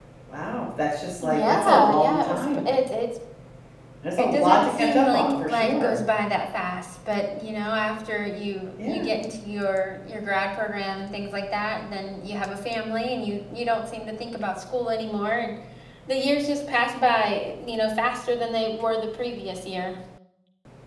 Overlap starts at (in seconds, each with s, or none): 1.2 s